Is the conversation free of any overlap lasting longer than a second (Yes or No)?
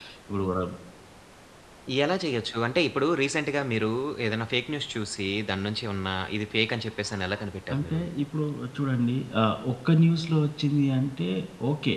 Yes